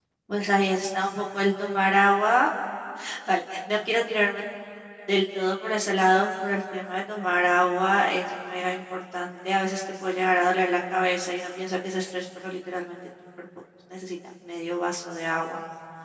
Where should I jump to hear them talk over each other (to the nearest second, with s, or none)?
none